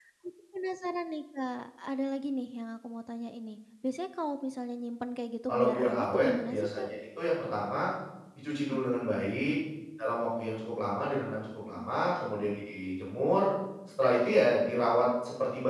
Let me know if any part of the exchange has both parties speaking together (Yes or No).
Yes